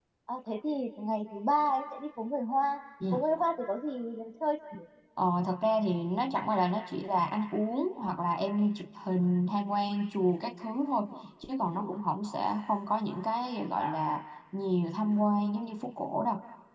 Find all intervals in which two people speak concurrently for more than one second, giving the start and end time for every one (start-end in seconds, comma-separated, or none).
none